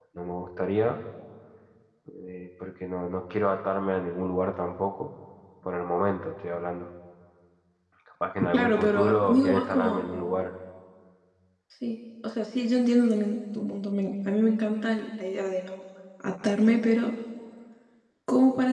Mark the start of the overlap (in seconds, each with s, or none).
8.5 s